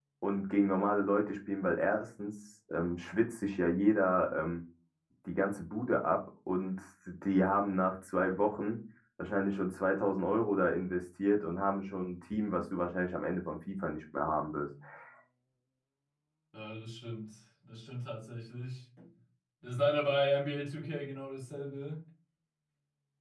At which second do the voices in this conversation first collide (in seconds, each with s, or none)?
none